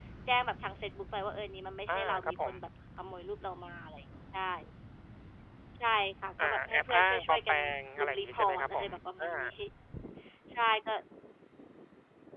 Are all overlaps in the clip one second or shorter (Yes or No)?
No